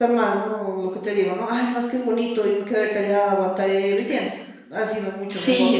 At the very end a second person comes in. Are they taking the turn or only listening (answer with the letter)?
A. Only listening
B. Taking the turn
B